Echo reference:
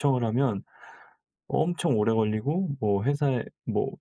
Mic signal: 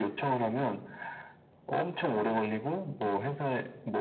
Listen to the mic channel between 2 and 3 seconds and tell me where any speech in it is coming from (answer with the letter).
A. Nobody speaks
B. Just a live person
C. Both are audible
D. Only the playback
D